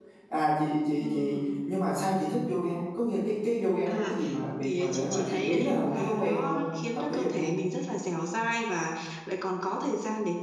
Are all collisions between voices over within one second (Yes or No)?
No